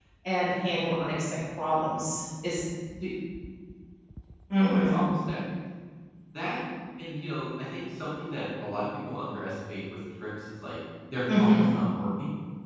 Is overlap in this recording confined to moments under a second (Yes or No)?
Yes